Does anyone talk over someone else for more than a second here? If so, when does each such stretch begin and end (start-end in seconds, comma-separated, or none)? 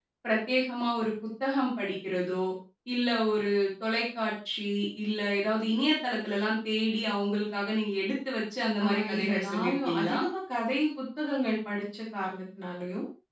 8.8-10.2